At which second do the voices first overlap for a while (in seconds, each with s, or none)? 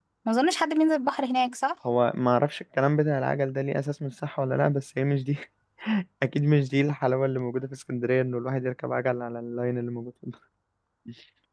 none